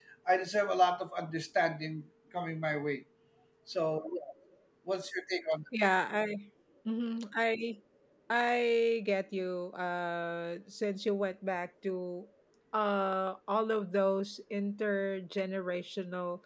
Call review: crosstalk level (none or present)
none